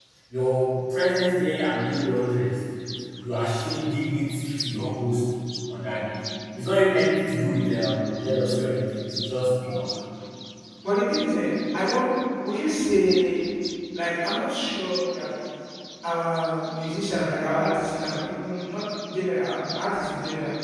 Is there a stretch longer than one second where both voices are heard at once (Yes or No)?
No